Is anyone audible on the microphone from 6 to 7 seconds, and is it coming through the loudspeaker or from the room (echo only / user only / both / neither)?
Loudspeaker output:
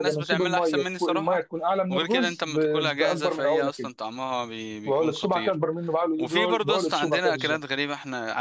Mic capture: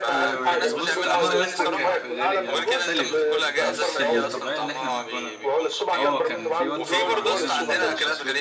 both